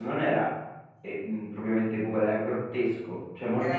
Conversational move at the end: listening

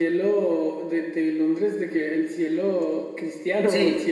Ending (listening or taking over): taking over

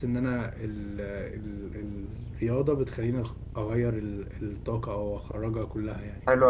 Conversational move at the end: taking over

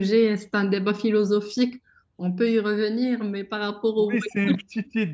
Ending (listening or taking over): taking over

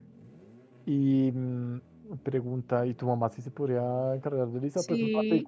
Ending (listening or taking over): taking over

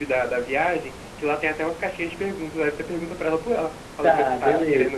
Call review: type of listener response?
taking over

